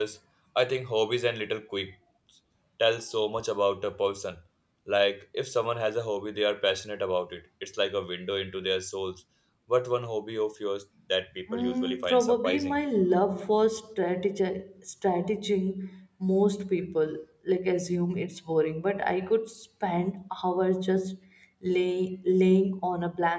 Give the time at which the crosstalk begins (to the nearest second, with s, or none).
11 s